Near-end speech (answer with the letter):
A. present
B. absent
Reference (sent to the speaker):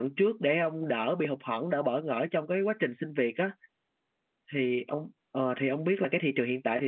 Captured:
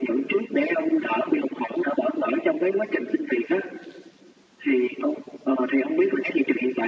B